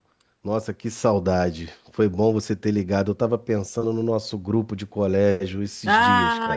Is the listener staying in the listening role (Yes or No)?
No